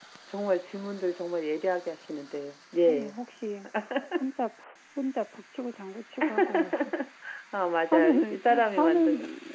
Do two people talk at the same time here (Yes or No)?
Yes